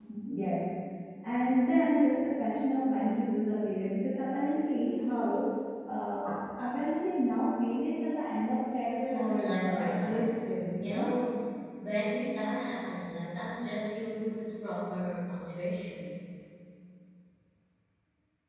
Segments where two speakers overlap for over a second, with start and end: 8.8-10.3

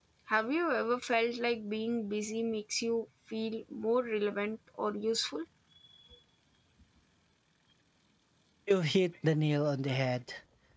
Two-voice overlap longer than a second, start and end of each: none

